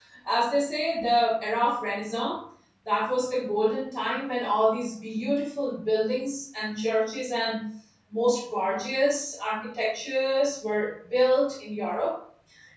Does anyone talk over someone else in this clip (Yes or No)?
No